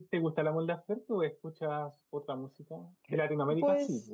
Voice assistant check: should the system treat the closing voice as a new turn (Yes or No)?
Yes